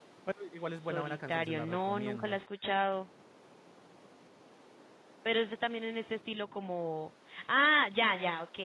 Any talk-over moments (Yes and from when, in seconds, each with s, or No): Yes, from 0.8 s